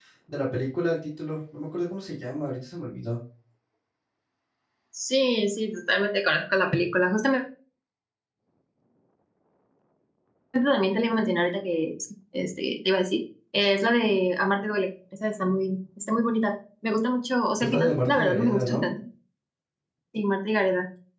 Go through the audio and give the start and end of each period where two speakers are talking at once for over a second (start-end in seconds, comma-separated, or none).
17.6-18.9